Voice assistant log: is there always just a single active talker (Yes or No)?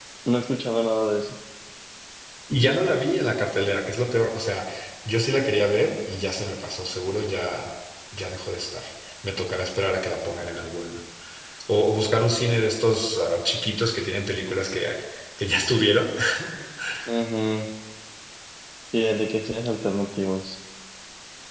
Yes